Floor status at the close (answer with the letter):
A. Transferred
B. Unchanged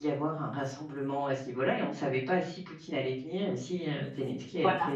B